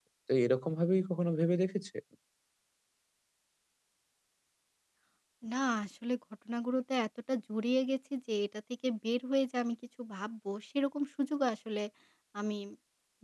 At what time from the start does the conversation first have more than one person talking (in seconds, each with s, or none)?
none